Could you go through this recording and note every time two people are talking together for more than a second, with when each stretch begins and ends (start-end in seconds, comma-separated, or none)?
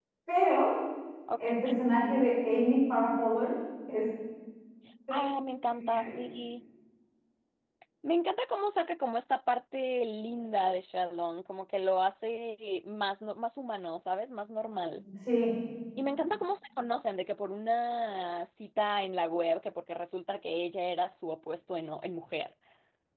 none